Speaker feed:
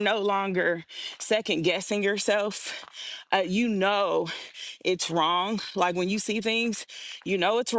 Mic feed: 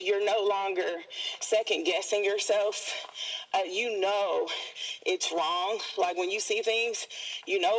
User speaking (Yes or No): No